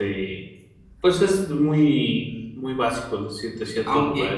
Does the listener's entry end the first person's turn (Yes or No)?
Yes